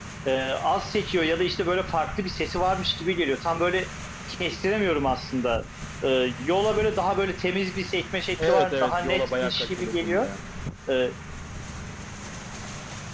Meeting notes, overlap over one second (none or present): present